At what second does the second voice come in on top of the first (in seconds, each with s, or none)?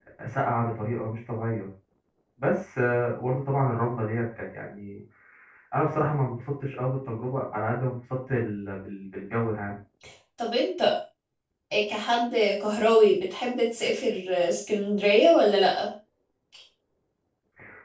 none